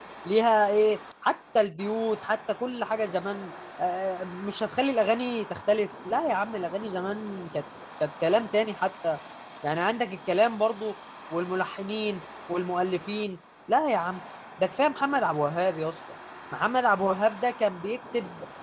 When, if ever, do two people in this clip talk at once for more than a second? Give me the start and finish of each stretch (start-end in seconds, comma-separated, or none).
none